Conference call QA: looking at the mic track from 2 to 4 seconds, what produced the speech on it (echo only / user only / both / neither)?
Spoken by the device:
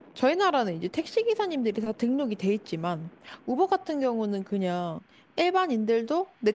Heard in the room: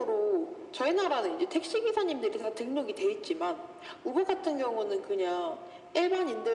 echo only